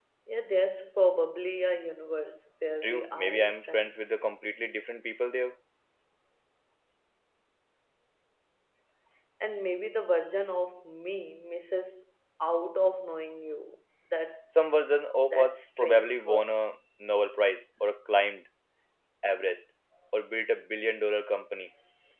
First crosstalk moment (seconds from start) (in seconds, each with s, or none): 2.8 s